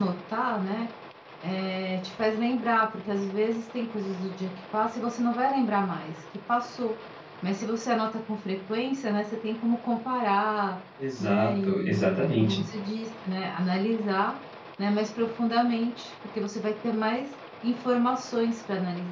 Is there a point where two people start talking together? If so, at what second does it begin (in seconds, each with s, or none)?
11.2 s